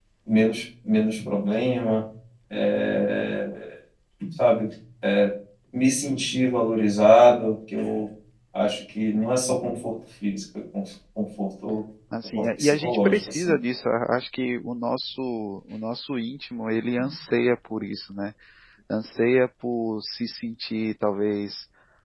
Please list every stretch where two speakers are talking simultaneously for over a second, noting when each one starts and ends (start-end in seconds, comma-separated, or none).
12.4-13.6